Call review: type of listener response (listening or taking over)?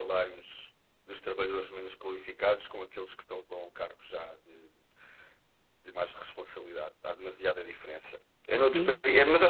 listening